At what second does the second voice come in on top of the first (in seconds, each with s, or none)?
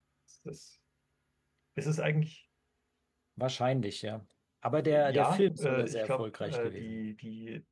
4.9 s